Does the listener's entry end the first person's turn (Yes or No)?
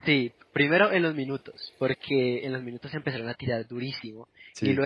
No